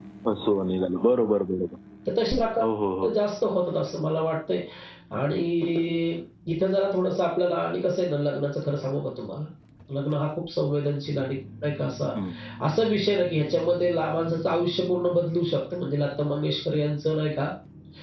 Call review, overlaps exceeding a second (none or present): none